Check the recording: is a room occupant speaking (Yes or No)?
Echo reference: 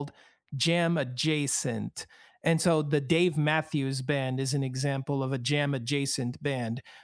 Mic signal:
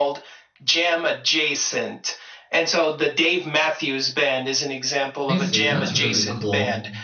Yes